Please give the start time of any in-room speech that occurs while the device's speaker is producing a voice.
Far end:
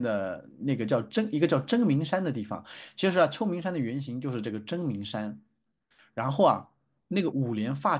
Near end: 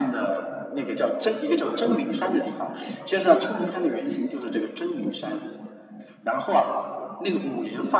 none

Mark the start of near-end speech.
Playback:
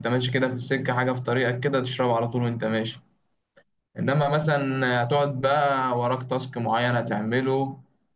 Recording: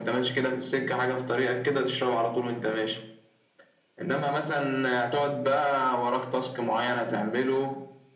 none

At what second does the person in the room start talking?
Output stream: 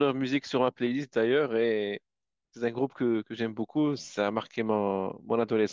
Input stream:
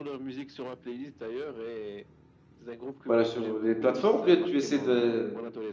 3.1 s

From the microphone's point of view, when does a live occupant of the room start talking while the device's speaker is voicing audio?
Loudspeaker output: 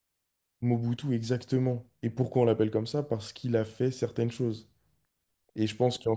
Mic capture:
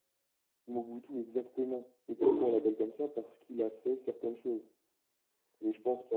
2.1 s

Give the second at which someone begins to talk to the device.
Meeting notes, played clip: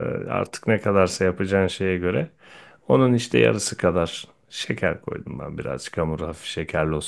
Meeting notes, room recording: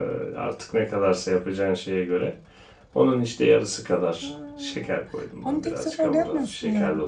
4.2 s

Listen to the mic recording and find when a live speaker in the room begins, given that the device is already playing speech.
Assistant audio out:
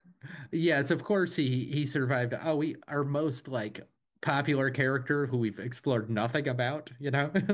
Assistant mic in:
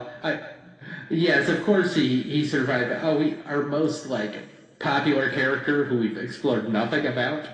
none

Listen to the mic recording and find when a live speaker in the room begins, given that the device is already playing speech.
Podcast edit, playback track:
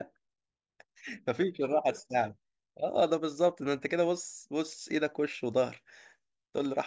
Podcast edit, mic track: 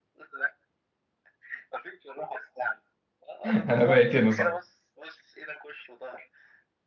3.4 s

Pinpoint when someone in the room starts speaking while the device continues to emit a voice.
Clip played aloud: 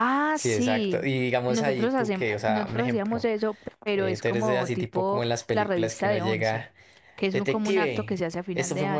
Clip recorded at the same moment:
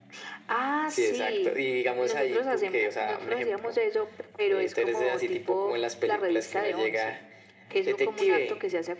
none

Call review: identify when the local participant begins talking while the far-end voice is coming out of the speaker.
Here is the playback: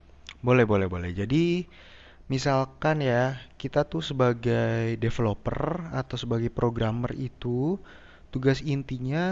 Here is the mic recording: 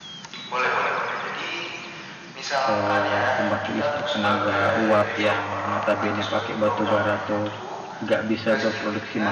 2.7 s

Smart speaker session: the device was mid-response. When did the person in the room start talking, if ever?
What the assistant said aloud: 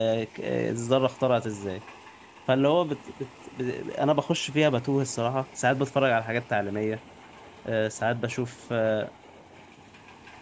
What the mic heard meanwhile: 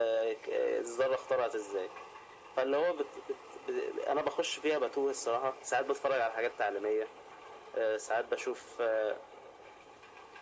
none

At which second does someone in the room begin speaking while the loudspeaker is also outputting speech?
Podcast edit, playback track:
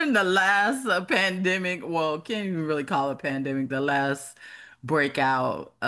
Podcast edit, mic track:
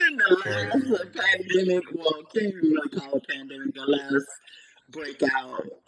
0.3 s

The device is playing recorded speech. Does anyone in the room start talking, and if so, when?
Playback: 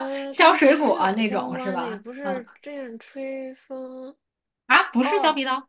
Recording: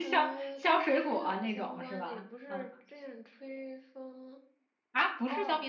none

